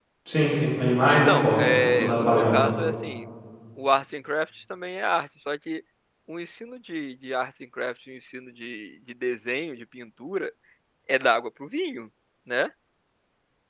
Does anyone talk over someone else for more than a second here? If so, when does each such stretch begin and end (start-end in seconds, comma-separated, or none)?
1.1-2.6